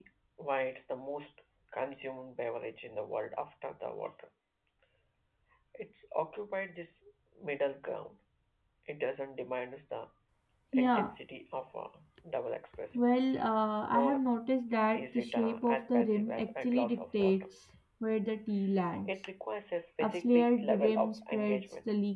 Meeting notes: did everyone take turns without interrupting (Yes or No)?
No